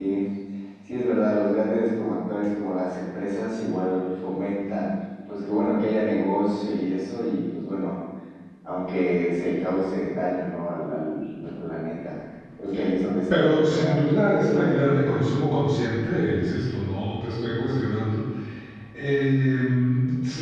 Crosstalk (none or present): present